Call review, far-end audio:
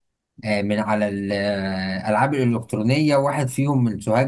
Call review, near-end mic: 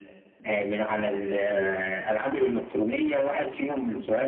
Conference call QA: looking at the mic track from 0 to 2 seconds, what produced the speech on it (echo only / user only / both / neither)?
echo only